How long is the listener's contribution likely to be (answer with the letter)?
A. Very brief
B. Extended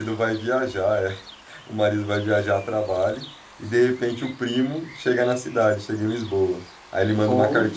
A